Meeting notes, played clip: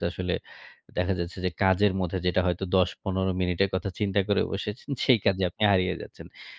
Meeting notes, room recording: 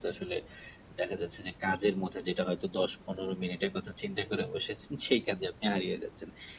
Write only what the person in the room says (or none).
none